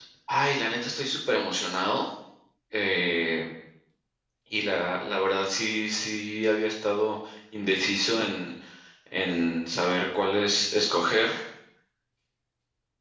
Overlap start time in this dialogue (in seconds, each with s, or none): none